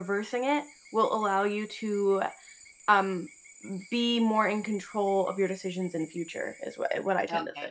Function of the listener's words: taking over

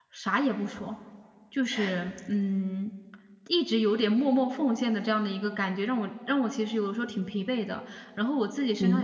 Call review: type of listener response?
listening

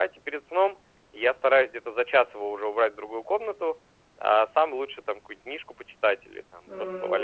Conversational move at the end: taking over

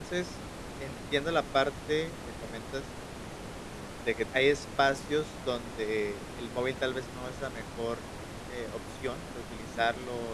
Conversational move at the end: listening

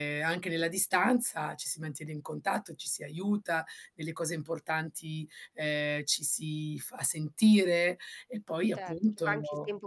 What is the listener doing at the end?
taking over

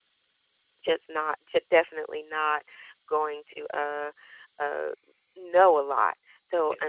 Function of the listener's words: listening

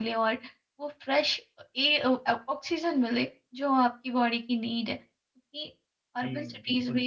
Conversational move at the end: taking over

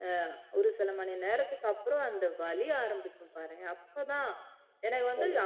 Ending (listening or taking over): listening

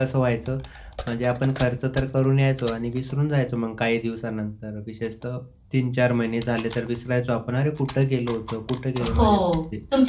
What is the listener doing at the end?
taking over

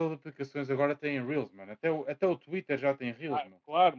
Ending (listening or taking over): taking over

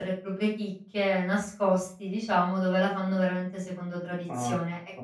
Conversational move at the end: listening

